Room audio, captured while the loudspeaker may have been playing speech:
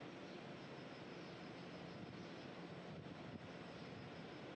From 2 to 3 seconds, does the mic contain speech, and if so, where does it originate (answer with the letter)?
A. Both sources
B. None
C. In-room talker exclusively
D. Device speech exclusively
B